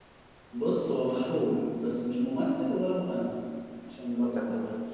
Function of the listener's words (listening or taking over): taking over